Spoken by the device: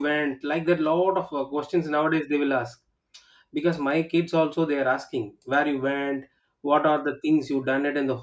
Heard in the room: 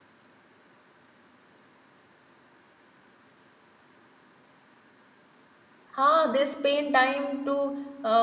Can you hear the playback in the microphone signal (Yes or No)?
No